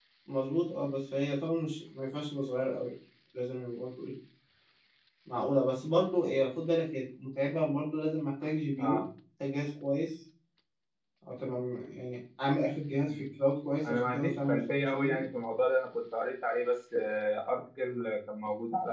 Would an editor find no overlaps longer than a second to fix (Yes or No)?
No